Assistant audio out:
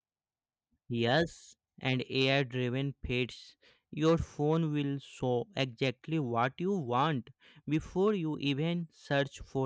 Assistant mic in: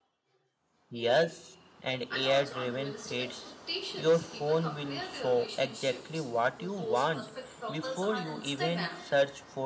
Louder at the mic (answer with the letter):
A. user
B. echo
B